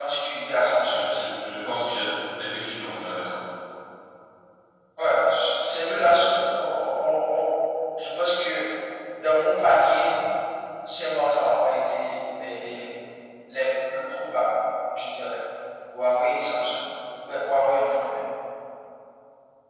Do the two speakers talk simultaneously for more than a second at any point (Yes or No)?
No